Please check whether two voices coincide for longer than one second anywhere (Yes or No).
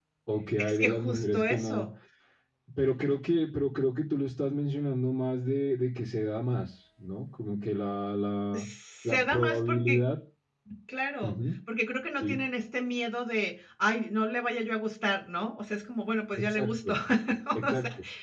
Yes